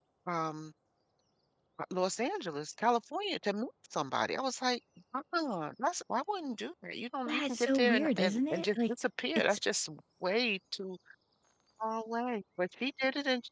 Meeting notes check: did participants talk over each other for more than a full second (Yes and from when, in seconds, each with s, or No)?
Yes, from 7.3 s